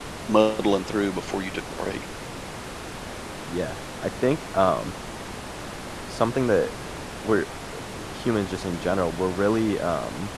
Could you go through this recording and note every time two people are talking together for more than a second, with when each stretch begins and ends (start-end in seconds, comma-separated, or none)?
none